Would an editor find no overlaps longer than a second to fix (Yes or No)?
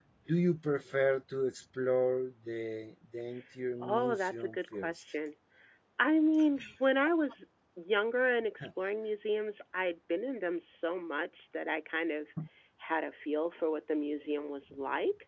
No